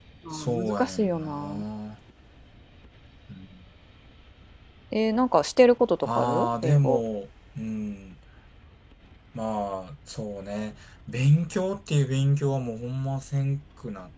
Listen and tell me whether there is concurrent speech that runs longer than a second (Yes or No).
Yes